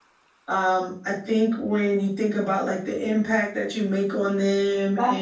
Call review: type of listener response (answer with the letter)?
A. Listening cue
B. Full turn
A